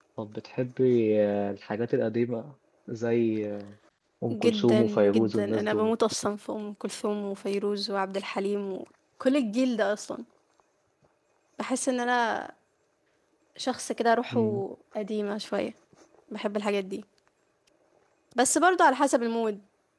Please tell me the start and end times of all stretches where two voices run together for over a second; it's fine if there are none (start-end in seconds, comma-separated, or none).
4.3-5.9